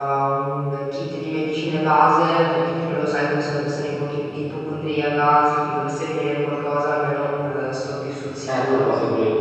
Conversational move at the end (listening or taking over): taking over